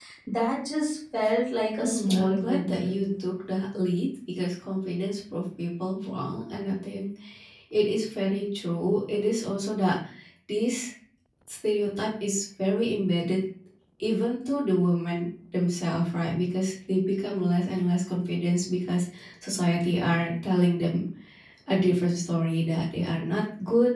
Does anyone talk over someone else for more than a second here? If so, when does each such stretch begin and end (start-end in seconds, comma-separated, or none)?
1.8-3.0